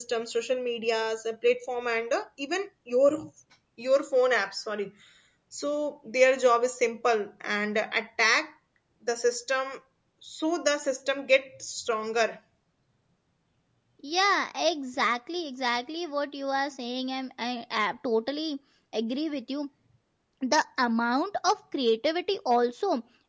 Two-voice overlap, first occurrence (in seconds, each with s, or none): none